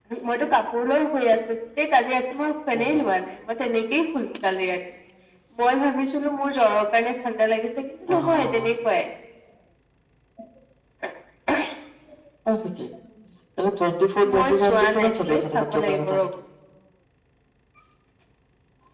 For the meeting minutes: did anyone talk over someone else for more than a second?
Yes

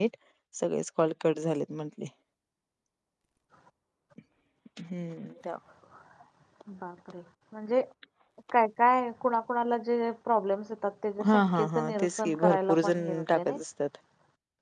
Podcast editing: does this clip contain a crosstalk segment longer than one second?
Yes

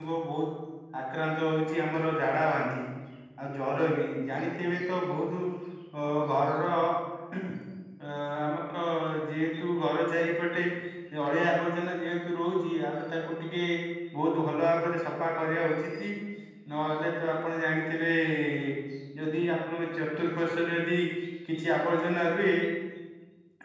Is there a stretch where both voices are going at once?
No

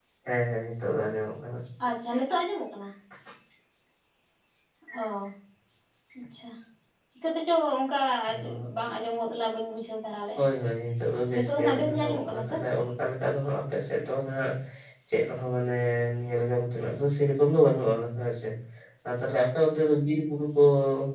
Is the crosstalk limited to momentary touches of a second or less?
No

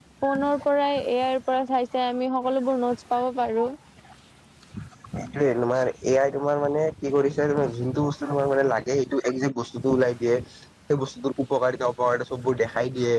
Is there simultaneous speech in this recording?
No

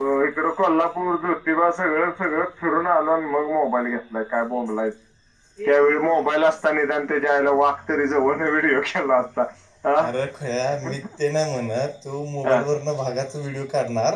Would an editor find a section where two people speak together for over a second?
No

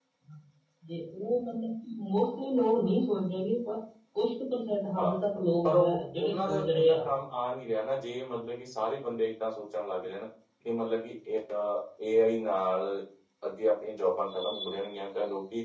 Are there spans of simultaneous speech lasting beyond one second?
Yes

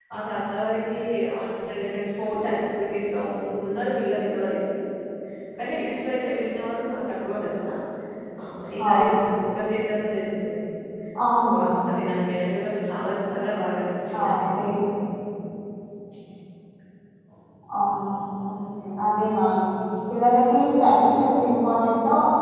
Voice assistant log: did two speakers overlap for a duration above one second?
No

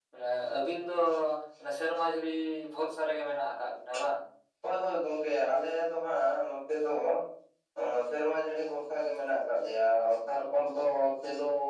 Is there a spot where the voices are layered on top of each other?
No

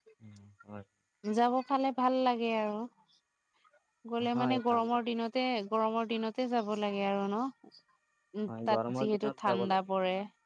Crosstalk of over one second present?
Yes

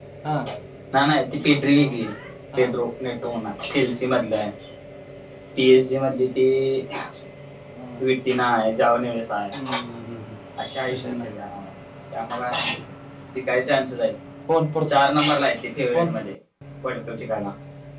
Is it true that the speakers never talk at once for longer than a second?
Yes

